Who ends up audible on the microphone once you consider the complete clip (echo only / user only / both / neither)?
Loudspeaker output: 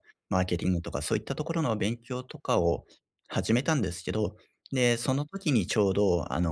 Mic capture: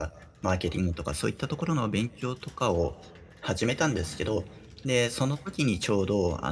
echo only